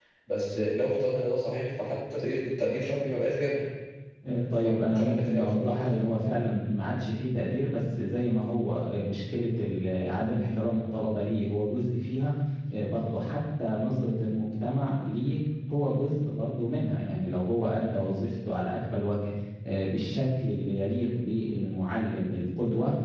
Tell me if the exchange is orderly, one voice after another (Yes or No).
No